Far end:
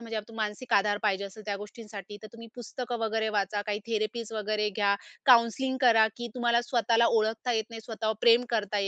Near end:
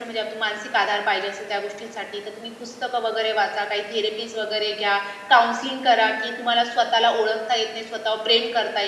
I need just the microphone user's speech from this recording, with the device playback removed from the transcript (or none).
none